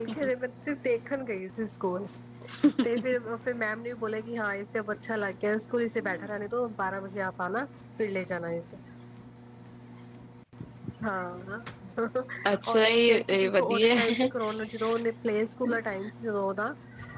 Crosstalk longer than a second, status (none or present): present